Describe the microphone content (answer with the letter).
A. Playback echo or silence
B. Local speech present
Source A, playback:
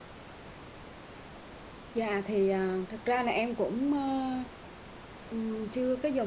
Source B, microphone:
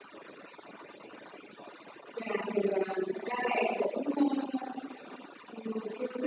A